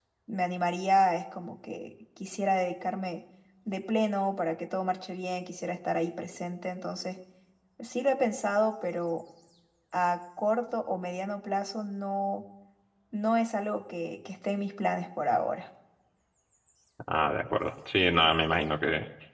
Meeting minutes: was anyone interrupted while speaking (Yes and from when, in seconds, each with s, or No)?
No